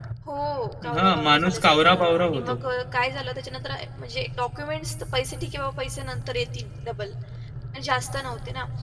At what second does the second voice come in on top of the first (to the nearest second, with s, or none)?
1 s